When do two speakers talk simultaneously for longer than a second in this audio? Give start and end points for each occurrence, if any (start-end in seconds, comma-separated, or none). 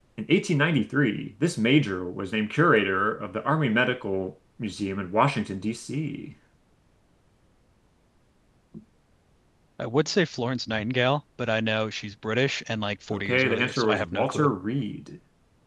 13.1-14.5